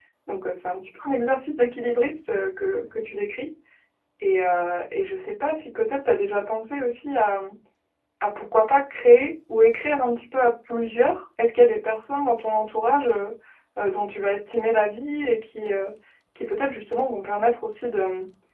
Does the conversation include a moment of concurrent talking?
No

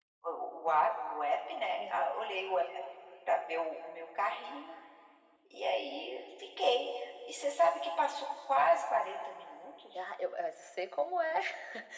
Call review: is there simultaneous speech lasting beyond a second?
No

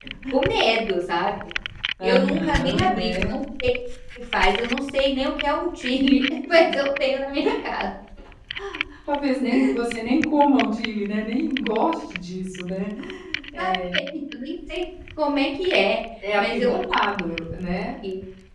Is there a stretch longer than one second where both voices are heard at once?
Yes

